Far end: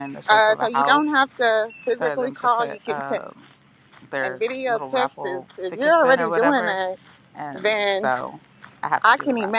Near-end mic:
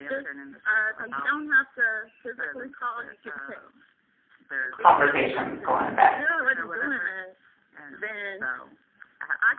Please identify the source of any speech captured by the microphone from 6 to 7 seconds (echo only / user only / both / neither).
both